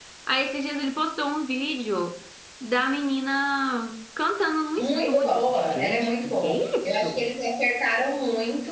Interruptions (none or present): present